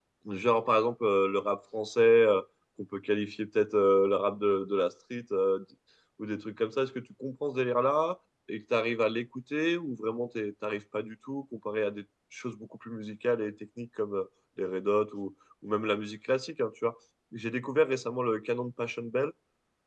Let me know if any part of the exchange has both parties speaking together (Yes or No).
No